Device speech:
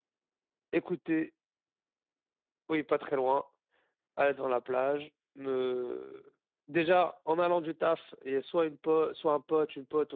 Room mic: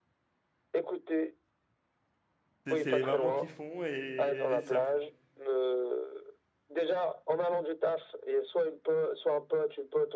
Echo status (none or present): present